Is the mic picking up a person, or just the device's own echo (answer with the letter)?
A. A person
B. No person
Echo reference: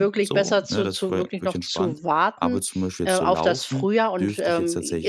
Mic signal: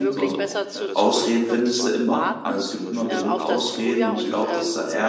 A